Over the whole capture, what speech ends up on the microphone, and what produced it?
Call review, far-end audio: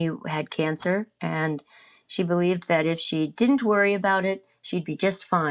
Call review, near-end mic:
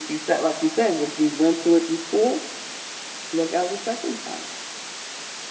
user only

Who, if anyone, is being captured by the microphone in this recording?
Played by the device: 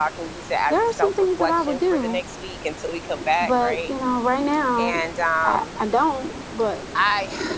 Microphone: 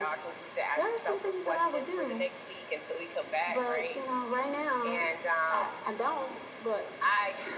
echo only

